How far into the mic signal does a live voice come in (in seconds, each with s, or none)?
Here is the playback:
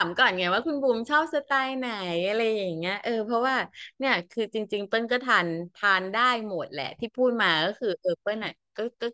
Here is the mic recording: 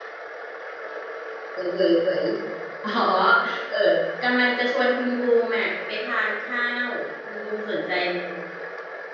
1.5 s